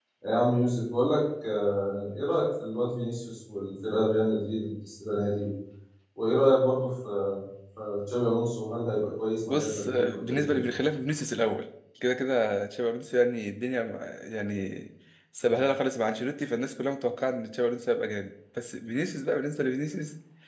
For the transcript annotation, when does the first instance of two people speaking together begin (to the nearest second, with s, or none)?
9 s